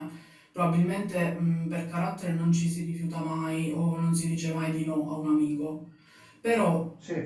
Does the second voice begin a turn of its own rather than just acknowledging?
No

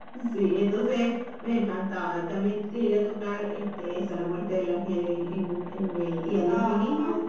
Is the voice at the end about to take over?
No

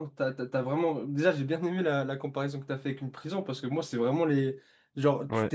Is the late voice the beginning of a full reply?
No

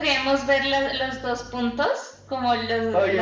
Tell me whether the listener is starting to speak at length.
Yes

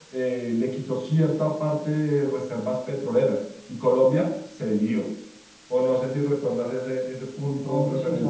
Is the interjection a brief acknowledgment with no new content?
No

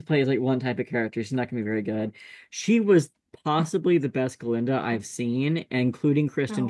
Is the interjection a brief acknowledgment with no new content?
Yes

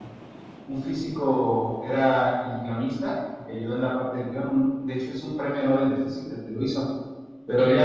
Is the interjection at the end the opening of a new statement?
No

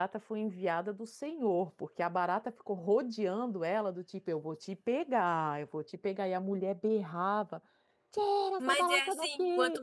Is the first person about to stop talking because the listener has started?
Yes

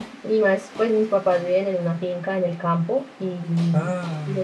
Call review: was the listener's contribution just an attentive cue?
Yes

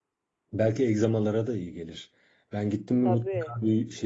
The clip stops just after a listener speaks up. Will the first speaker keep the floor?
Yes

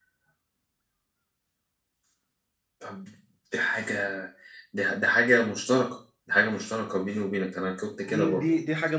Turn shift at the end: Yes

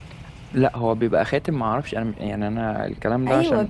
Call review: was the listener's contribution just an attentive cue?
No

